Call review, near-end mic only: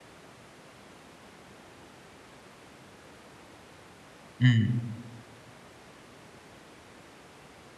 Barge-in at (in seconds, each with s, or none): 4.4 s